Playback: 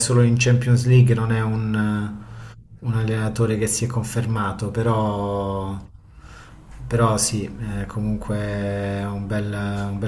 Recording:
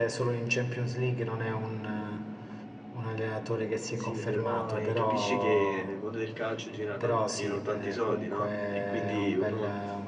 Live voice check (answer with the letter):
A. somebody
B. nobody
A